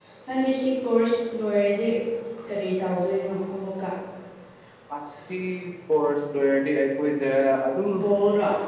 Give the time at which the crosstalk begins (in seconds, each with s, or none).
none